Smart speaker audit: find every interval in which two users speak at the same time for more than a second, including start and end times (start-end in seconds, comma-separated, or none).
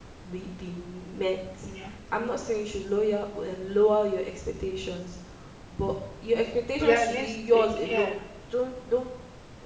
6.8-8.2